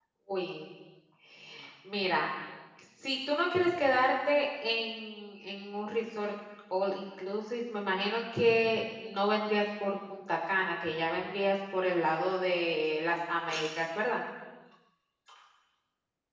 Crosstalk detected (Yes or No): No